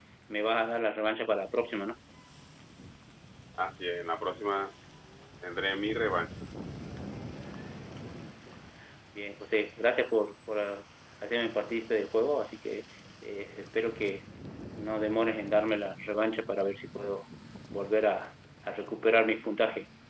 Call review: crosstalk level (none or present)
none